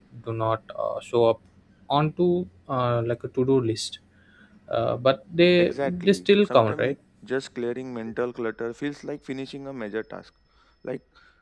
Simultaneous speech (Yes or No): Yes